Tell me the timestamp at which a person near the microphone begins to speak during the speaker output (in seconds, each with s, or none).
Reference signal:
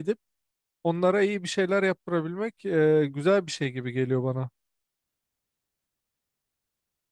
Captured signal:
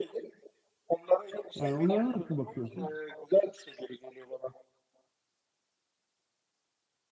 1.6 s